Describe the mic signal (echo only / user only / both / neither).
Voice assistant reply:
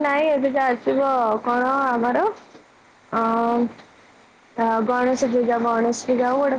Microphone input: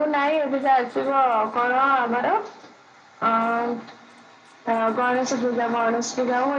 echo only